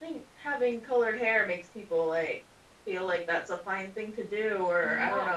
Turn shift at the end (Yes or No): No